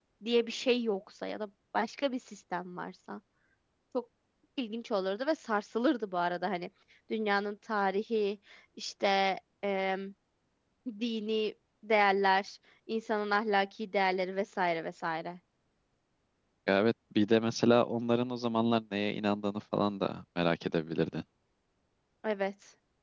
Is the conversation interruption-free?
Yes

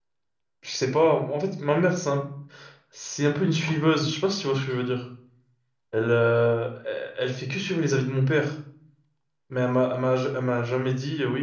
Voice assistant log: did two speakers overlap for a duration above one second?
No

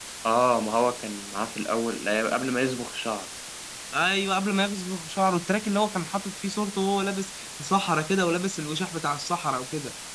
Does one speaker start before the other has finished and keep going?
No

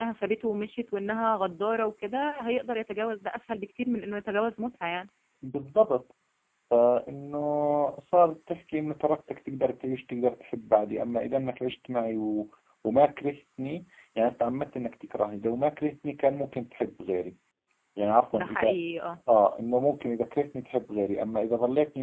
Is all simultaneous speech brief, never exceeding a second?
Yes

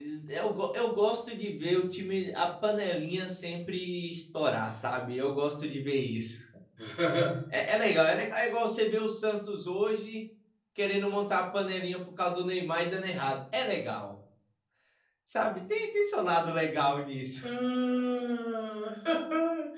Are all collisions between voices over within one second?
Yes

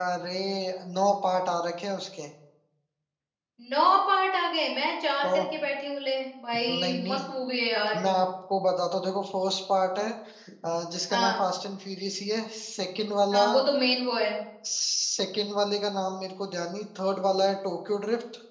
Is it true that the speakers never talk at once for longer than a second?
Yes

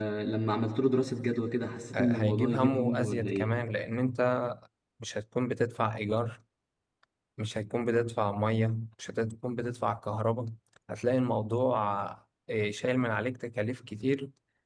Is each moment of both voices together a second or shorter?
No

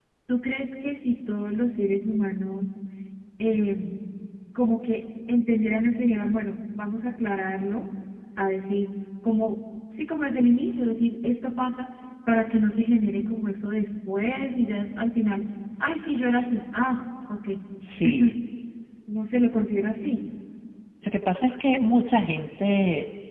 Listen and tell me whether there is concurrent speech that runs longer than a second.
No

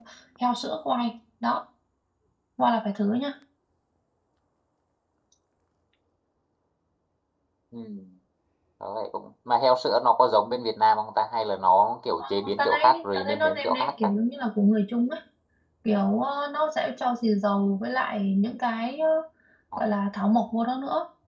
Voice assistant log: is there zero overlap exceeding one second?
No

